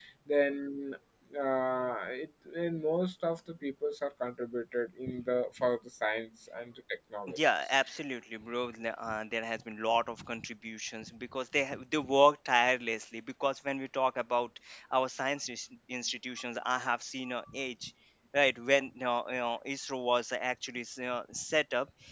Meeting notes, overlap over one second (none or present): none